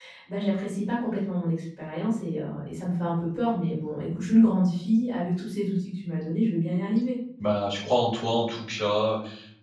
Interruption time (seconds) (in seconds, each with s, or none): none